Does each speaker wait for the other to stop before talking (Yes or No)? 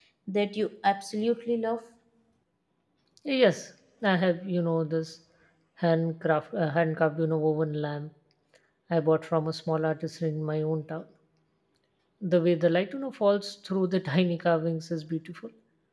Yes